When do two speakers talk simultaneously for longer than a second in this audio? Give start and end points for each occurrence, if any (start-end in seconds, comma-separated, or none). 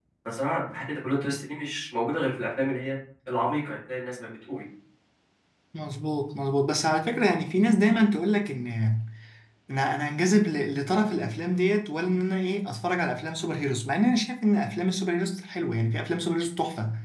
none